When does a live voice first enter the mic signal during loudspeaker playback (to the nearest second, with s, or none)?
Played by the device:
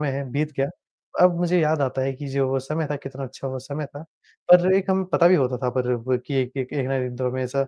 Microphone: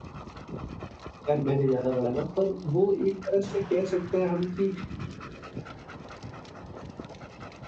1 s